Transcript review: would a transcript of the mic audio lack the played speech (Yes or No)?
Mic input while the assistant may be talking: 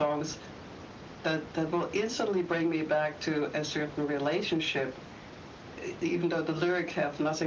No